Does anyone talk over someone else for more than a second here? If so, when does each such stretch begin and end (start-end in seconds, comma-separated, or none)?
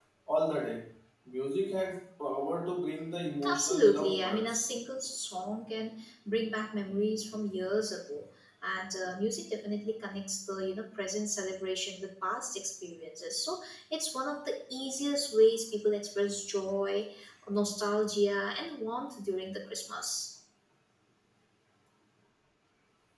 3.4-4.6